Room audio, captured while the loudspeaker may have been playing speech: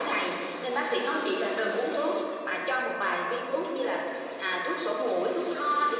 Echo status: present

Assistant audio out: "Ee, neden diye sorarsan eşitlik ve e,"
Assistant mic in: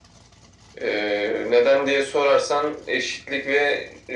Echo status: present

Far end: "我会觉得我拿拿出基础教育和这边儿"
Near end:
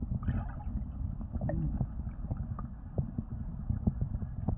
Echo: none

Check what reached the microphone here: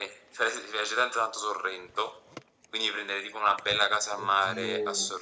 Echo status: present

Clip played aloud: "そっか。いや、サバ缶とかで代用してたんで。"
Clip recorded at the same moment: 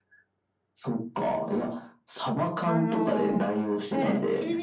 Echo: present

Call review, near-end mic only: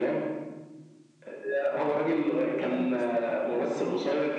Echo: present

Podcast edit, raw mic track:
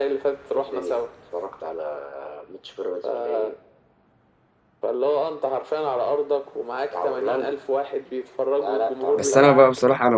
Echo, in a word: present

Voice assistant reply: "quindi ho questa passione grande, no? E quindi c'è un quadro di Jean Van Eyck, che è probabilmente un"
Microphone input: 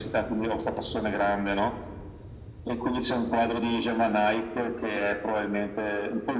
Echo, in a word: present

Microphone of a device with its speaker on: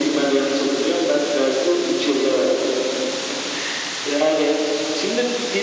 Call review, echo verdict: present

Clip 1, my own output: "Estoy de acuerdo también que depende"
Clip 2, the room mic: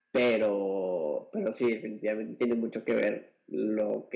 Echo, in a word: none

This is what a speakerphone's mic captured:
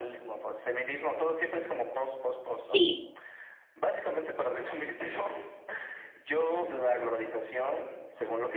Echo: present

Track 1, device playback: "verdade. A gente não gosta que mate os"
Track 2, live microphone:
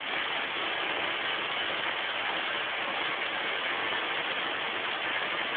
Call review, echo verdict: none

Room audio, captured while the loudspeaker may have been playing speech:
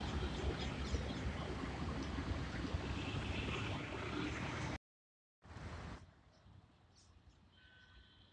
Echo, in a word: none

